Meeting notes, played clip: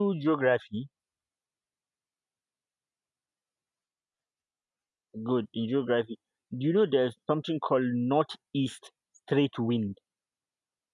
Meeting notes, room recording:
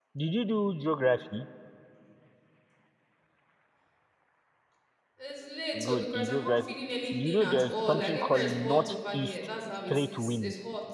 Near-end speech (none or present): present